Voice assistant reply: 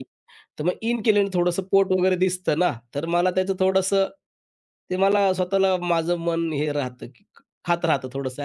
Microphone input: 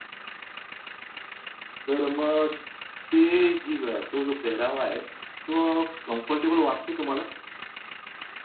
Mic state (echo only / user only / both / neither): user only